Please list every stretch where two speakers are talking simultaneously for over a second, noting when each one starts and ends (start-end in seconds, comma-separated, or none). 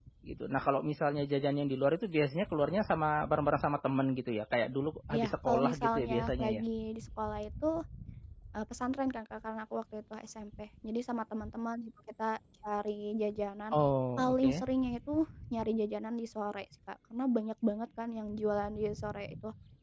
5.1-6.6